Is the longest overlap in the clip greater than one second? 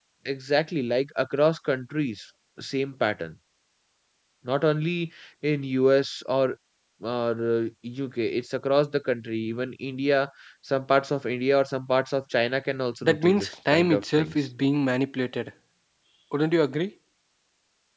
Yes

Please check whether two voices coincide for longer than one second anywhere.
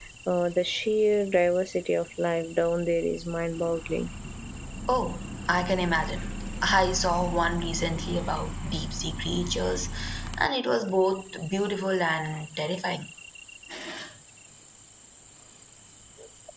No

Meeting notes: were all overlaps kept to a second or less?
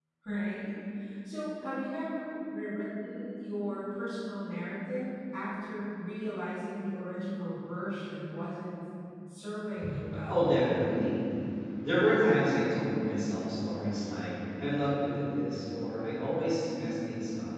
Yes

